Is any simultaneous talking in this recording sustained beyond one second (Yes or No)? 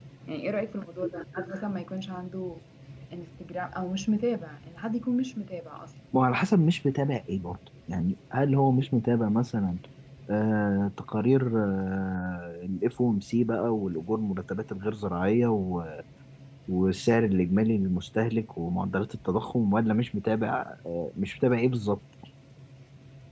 No